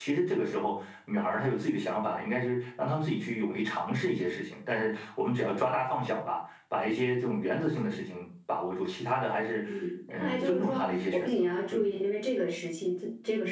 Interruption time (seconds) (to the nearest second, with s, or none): 10 s